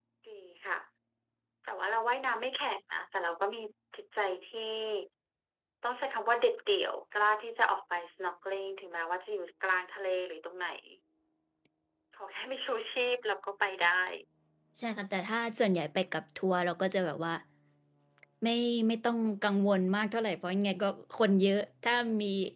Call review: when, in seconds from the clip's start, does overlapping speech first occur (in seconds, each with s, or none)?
none